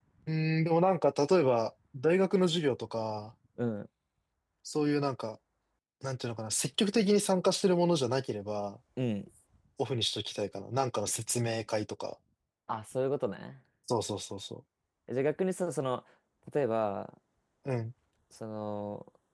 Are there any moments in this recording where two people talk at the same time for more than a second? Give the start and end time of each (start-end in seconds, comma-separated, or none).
none